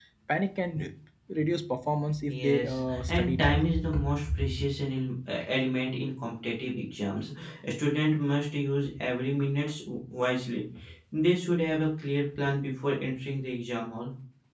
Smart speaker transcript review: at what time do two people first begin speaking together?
2.3 s

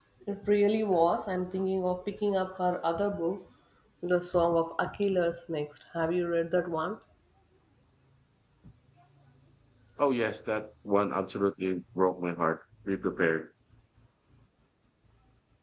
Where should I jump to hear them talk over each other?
none

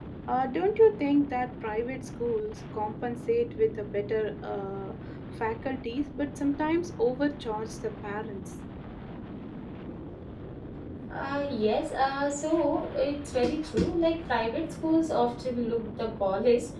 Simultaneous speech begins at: none

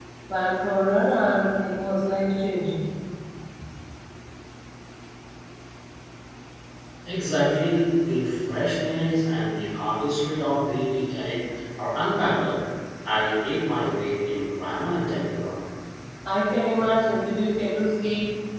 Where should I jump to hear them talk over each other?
none

